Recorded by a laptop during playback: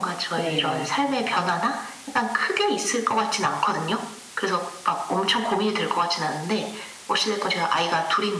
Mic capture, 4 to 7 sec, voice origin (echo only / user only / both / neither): echo only